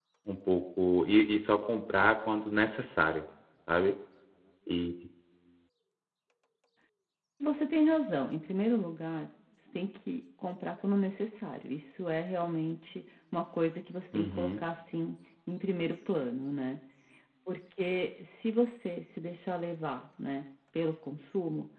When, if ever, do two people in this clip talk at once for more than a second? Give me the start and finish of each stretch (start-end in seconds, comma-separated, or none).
none